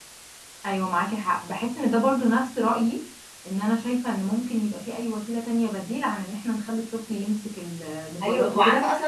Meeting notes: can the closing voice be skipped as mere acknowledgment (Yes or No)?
No